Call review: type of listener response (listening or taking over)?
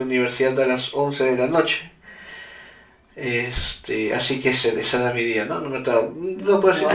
listening